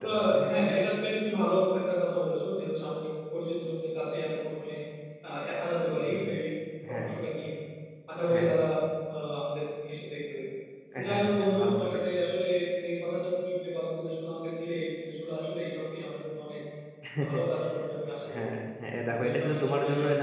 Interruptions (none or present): present